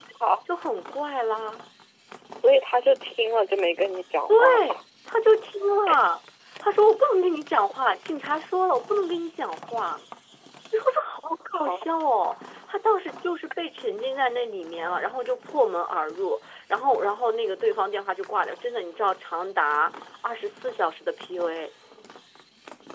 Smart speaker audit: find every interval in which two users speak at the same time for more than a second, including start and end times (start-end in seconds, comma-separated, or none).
none